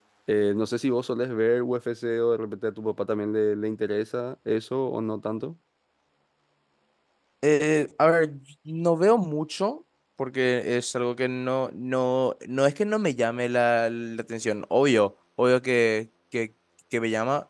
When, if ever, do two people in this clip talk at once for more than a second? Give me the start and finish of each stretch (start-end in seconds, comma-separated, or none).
none